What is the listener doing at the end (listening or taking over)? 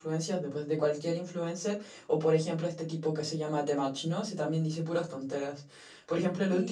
listening